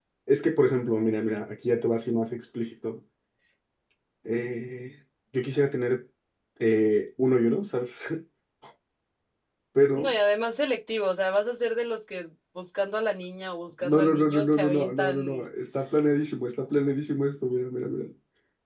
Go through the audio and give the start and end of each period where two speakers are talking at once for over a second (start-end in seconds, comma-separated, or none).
13.8-15.5